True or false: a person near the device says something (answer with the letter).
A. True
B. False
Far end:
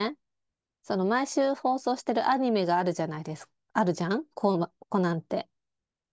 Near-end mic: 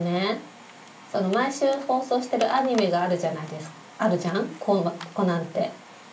B